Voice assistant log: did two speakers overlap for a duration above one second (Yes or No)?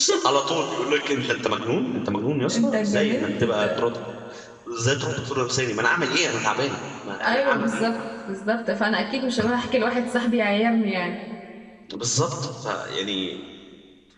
Yes